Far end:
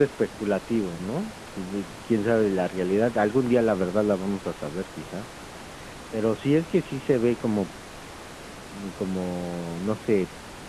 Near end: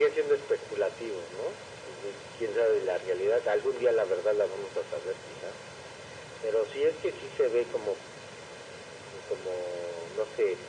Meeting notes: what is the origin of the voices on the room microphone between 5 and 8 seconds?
echo only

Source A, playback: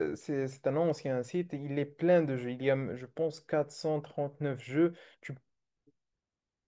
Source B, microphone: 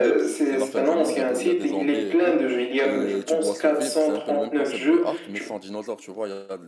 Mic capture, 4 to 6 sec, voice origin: both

